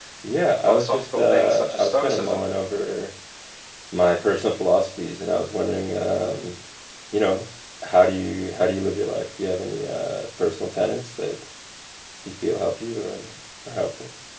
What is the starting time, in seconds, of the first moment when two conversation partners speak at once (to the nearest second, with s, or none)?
1 s